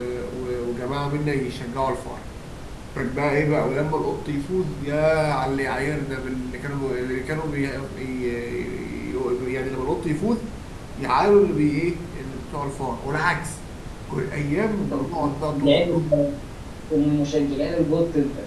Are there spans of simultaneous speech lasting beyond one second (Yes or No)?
Yes